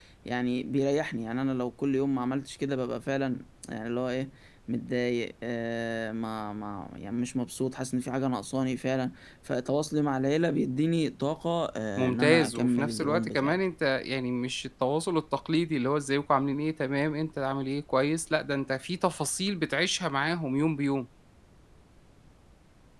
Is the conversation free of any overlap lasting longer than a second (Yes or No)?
No